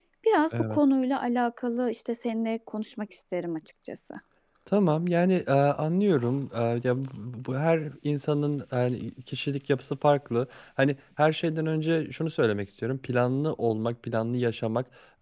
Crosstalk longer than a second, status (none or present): none